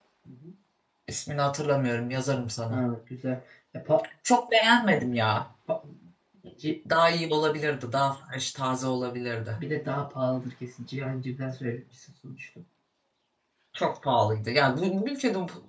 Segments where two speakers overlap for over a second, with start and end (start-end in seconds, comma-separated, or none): none